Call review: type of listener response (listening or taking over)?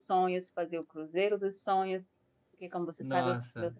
listening